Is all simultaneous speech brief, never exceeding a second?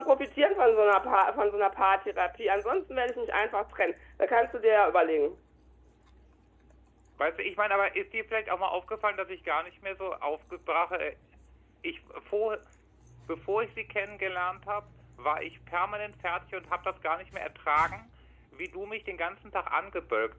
Yes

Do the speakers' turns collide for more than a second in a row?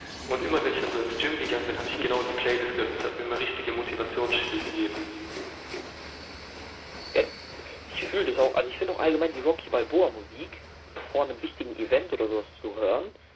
No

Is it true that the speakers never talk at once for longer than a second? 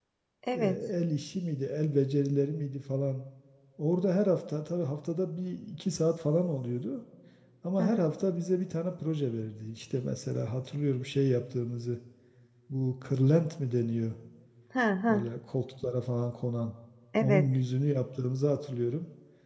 Yes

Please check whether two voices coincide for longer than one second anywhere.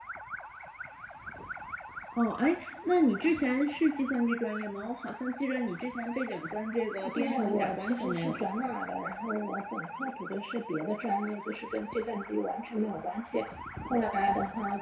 Yes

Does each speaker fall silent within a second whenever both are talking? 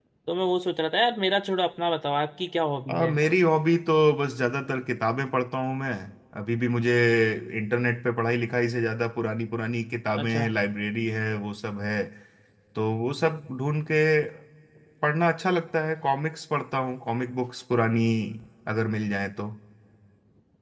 Yes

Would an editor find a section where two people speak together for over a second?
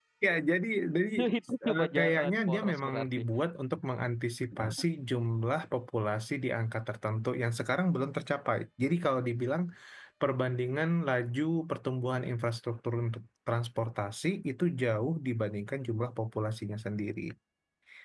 Yes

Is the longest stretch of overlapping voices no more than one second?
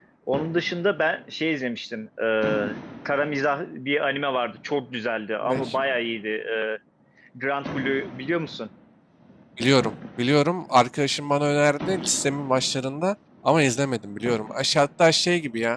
Yes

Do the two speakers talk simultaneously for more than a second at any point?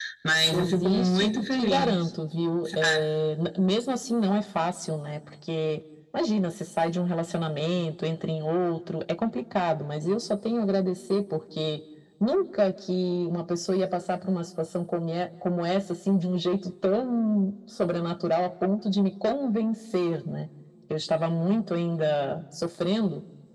Yes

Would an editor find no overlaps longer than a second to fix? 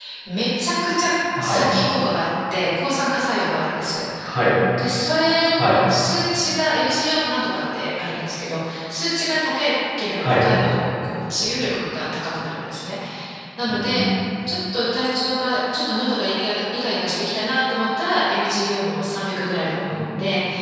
Yes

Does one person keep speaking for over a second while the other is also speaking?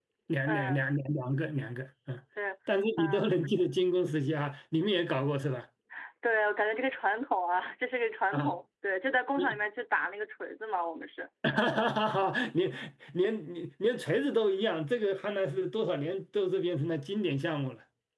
No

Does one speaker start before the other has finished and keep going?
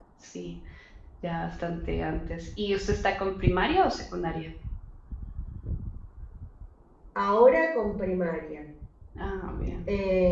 No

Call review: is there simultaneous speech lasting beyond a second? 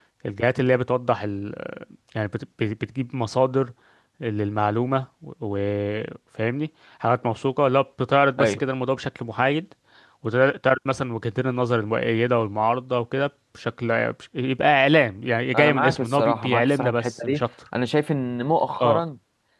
Yes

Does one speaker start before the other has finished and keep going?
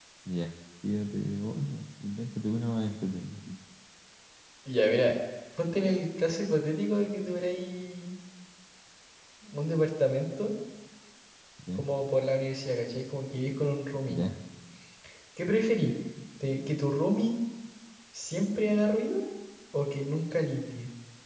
No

